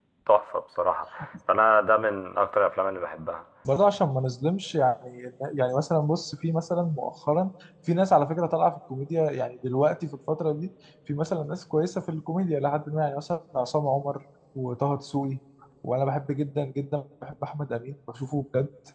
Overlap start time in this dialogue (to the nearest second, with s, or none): none